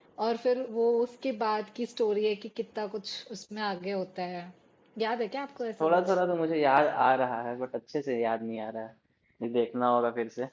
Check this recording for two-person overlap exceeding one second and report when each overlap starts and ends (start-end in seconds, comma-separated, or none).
none